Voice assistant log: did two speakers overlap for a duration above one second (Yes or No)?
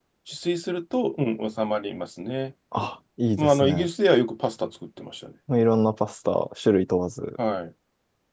No